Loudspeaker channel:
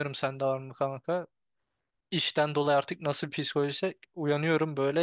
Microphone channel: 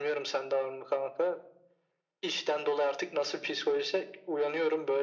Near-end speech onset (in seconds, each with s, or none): none